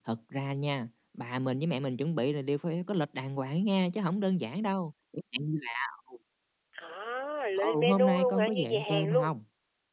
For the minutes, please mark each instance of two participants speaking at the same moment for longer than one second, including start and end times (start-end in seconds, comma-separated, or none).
7.6-9.3